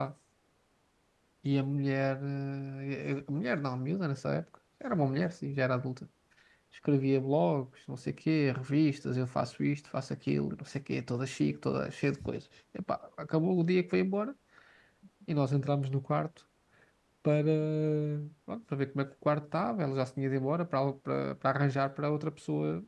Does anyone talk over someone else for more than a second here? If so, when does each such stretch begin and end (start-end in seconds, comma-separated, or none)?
none